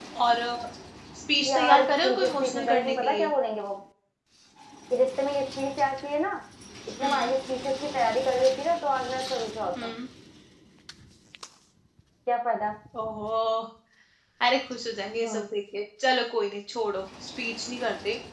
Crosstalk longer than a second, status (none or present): present